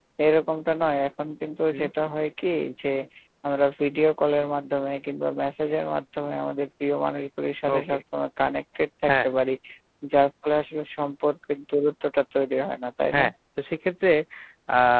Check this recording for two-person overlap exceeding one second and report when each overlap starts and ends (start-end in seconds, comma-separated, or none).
none